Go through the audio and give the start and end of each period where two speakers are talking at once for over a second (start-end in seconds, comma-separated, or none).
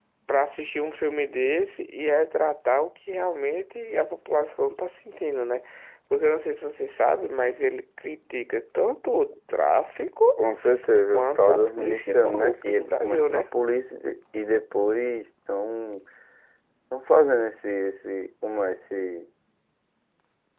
11.1-13.5